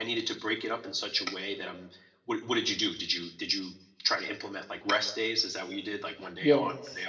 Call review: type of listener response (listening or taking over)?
taking over